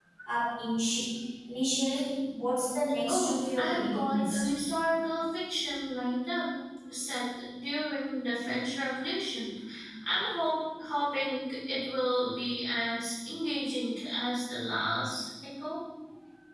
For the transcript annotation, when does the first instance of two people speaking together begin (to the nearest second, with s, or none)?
3 s